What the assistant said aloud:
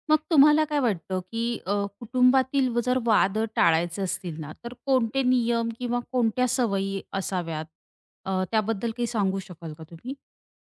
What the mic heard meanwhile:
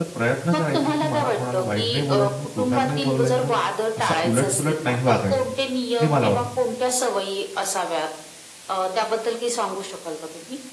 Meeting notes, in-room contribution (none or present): present